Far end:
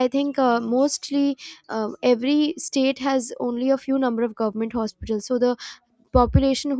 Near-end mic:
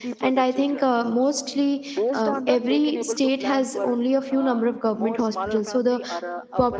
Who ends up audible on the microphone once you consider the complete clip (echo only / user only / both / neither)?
both